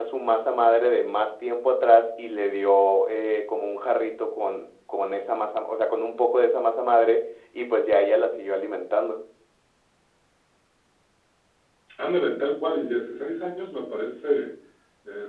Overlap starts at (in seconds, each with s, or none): none